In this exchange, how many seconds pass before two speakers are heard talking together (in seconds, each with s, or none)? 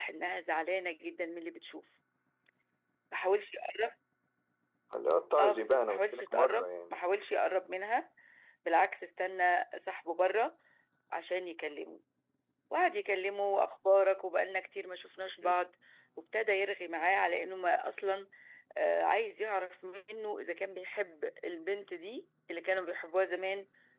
5.4 s